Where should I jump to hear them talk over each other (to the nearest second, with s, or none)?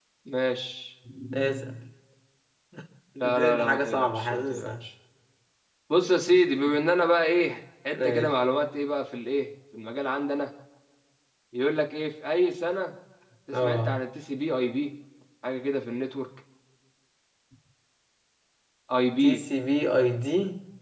3 s